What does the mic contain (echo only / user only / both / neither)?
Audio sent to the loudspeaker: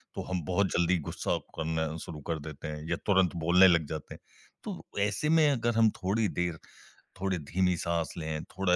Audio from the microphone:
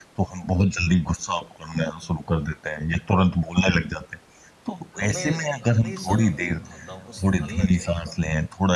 both